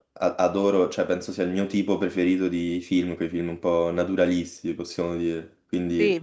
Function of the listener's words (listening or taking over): taking over